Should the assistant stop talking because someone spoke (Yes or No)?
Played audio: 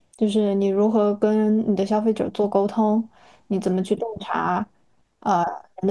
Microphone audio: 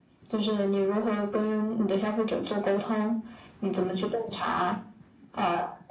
No